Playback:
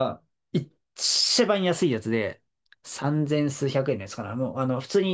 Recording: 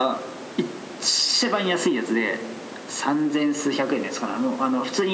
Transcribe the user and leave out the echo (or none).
none